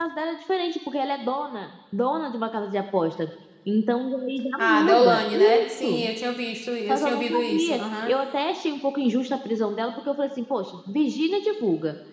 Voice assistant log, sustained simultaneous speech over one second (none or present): present